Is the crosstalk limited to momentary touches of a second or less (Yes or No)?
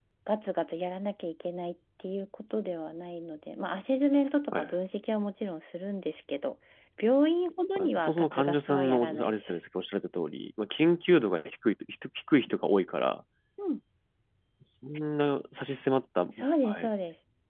No